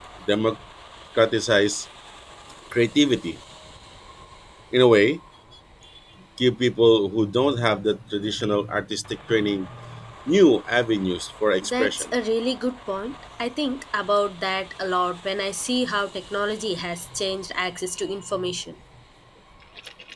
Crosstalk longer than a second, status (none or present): none